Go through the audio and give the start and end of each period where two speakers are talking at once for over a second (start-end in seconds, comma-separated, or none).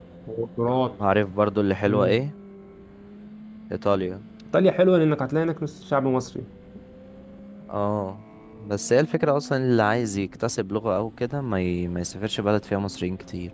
none